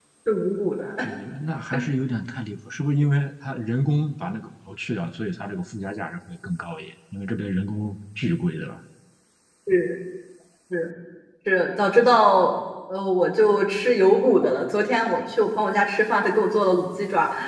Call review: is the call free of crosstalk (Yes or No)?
Yes